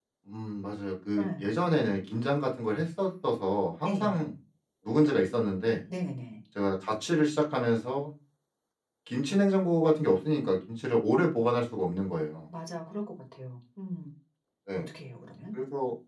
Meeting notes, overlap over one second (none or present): none